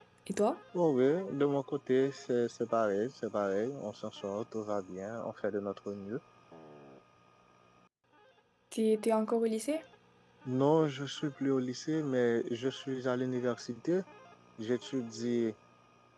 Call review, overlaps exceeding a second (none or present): none